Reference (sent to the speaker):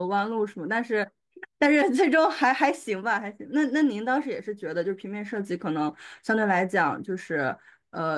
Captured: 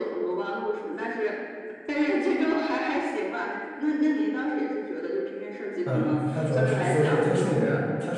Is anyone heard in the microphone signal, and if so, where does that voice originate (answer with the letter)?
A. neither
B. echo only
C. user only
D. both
D